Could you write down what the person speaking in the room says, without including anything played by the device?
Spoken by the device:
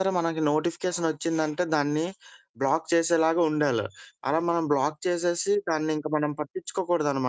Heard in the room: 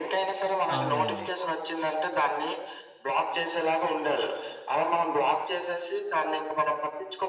అవునండి.

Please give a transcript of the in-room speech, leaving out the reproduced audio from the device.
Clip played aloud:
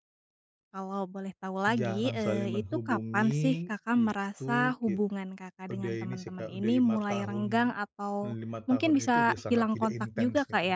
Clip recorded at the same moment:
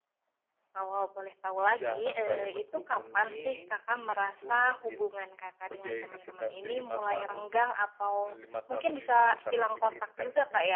none

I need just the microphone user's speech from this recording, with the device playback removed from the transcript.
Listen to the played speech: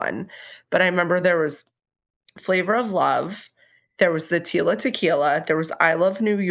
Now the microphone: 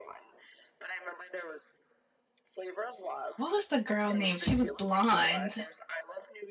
what was the girl name? She was blonde.

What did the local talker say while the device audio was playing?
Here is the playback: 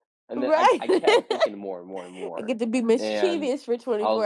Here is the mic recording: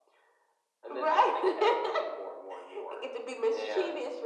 none

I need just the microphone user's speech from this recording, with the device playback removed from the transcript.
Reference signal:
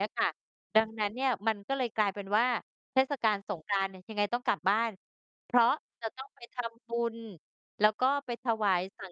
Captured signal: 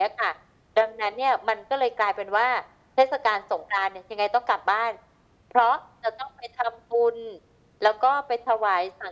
none

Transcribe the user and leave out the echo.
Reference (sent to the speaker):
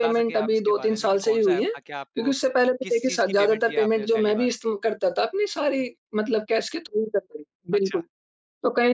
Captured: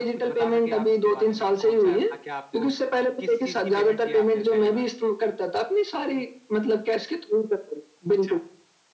none

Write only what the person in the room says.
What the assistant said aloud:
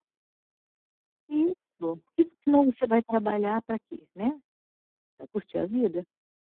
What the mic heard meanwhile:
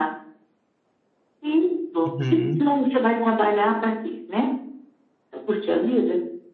Uhum.

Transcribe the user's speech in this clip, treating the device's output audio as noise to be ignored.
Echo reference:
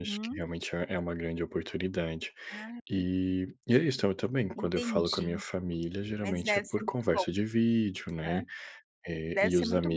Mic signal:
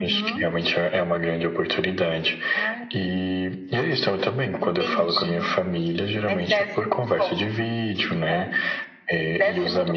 none

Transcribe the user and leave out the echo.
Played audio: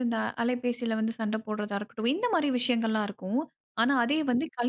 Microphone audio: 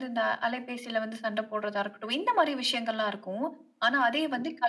none

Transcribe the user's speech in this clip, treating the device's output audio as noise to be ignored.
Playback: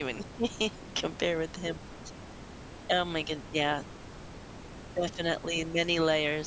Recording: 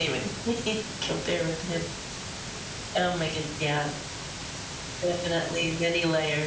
none

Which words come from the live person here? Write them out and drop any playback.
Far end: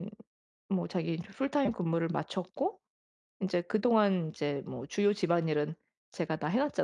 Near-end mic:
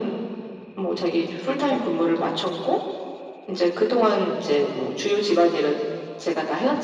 none

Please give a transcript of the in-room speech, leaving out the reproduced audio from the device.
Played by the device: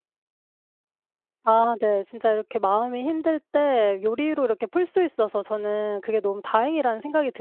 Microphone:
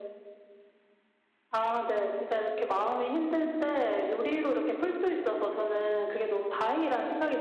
none

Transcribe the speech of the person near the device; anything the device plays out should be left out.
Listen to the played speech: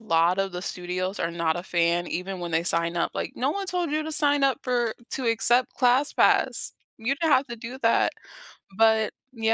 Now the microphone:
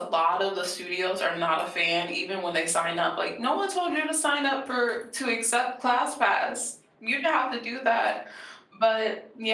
none

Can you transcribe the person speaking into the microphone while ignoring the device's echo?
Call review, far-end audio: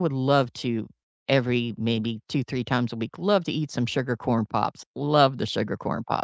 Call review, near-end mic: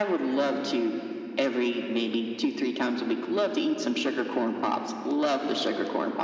none

